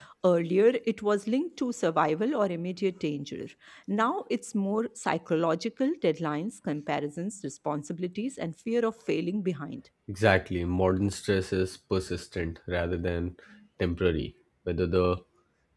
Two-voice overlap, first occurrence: none

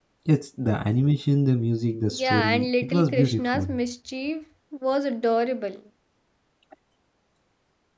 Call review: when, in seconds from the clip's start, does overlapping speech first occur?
2.1 s

